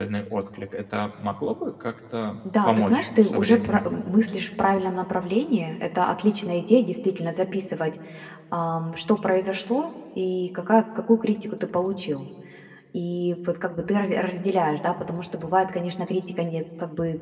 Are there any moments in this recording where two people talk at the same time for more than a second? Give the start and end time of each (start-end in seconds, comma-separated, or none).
2.6-3.9